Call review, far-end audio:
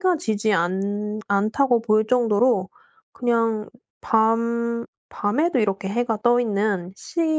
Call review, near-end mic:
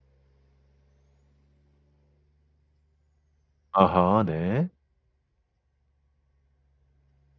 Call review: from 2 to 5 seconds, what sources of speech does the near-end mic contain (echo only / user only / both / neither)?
user only